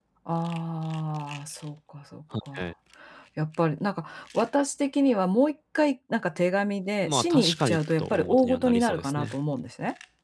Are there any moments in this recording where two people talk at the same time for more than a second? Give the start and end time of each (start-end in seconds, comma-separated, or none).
7.0-9.4